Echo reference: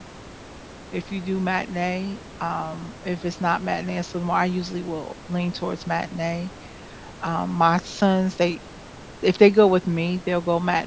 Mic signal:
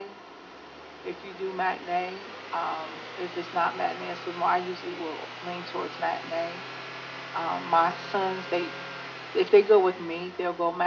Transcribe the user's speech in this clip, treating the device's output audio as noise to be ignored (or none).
none